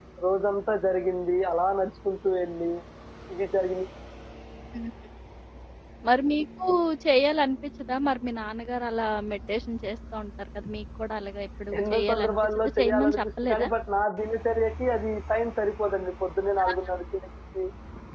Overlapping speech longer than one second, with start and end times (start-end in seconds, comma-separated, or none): 11.8-13.7